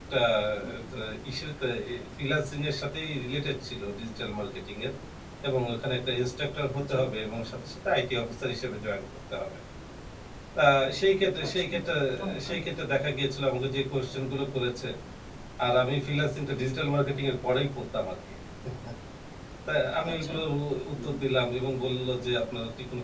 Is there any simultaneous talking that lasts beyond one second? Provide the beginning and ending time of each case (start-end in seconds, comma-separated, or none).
none